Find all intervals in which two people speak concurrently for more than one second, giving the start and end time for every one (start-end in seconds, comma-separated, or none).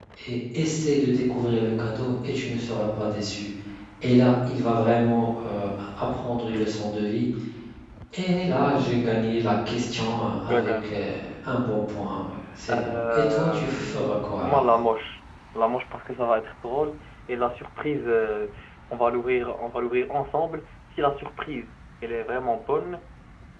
12.7-14.6